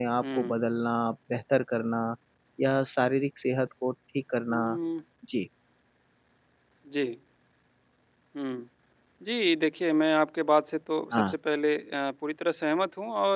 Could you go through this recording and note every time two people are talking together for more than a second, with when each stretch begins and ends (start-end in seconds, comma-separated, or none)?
none